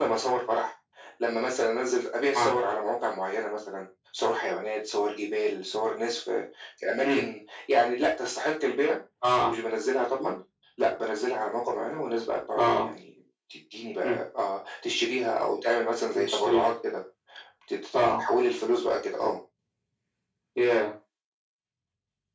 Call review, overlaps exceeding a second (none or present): none